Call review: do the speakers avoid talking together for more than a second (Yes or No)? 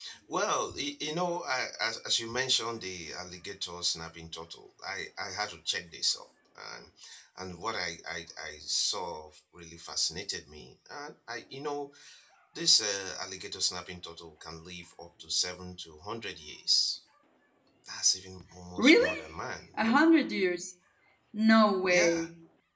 Yes